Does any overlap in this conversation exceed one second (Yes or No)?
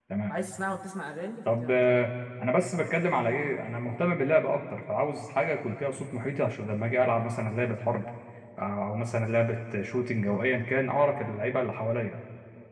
No